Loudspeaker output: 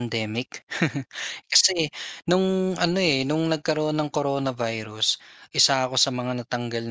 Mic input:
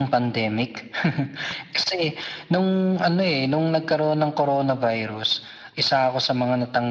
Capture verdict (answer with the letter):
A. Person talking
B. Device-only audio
B